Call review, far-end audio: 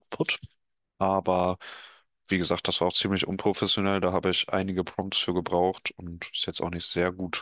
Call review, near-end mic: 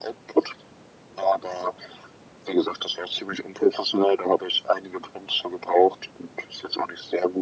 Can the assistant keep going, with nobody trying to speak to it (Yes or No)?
Yes